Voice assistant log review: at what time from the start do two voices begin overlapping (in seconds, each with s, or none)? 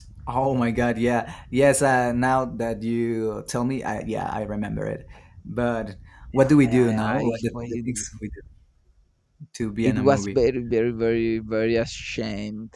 6.3 s